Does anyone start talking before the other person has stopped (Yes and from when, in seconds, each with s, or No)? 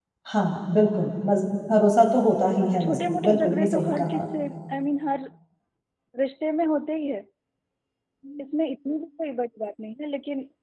Yes, from 2.2 s